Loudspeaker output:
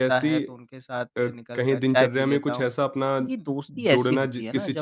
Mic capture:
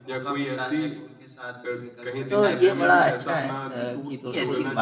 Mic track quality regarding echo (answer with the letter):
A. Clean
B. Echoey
B